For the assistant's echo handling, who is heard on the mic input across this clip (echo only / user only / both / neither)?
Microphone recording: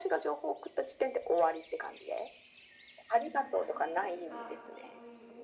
both